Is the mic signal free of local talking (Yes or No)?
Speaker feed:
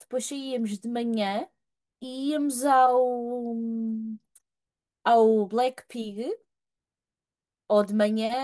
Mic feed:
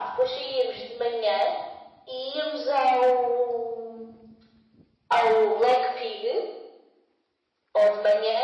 Yes